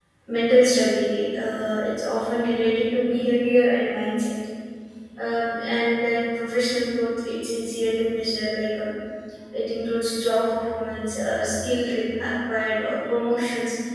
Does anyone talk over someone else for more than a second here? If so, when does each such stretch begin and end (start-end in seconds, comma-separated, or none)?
none